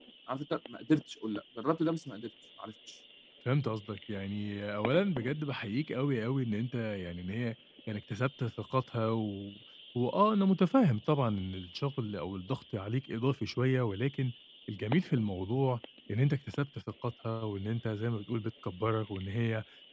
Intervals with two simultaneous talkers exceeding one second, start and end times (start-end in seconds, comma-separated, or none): none